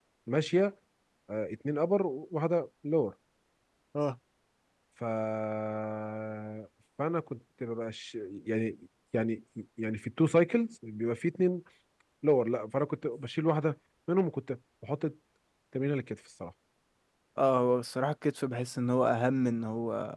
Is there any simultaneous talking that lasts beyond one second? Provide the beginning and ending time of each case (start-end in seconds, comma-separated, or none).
none